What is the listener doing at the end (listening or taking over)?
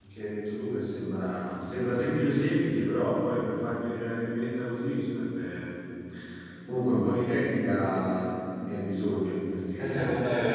taking over